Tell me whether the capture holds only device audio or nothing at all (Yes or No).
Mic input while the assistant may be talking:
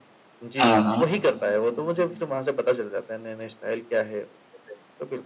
No